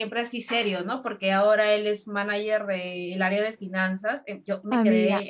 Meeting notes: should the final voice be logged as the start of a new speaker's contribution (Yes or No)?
Yes